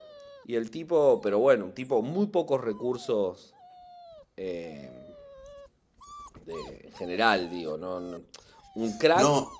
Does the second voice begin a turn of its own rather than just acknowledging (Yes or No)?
No